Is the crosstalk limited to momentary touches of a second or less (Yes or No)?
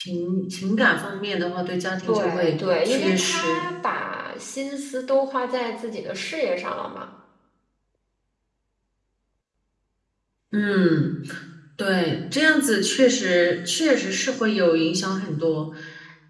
No